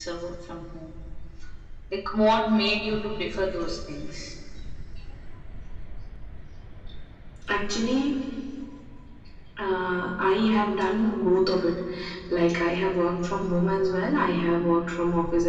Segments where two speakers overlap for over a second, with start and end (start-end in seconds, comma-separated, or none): none